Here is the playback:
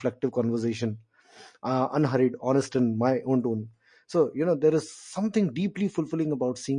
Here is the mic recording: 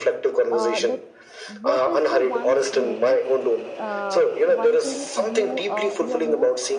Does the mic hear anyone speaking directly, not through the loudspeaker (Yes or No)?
Yes